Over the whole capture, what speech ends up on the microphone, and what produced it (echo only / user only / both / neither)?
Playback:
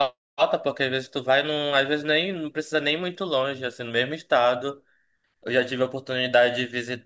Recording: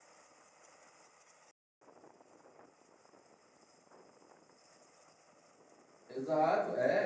user only